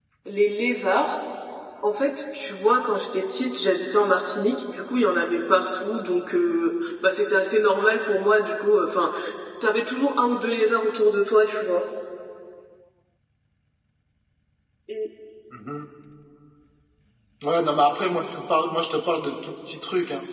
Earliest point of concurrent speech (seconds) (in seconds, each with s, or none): none